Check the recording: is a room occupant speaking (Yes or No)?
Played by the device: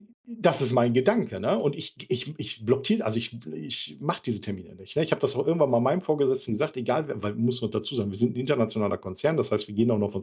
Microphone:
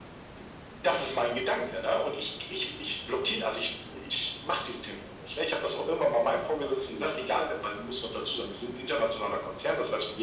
No